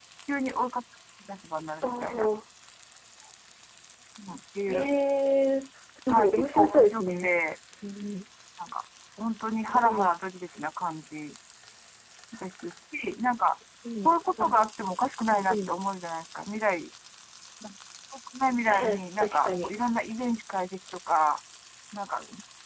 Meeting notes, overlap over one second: present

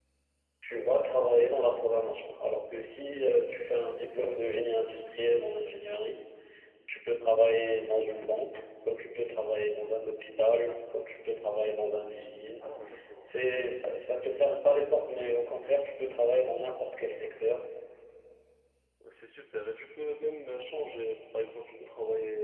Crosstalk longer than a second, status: none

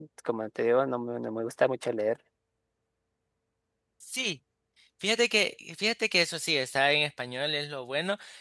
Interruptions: none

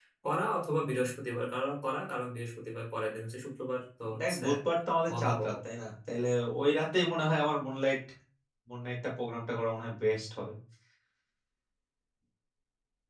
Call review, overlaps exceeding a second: none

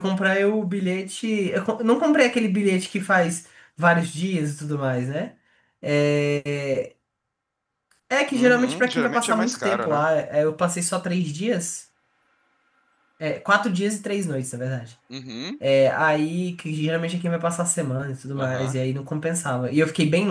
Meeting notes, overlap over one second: present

